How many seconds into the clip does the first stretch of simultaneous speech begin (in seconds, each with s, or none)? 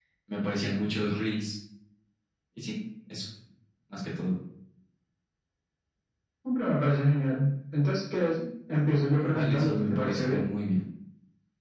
9.1 s